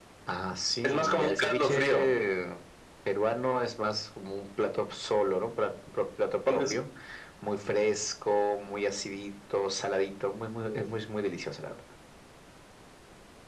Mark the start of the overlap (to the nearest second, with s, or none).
1 s